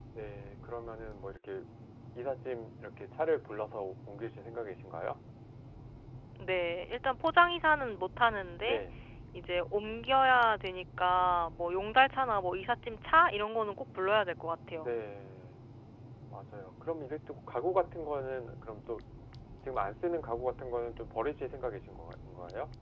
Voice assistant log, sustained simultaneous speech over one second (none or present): none